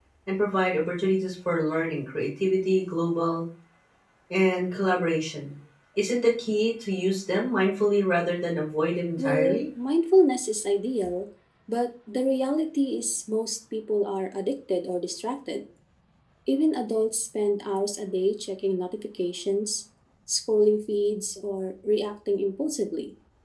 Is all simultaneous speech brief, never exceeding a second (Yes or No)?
Yes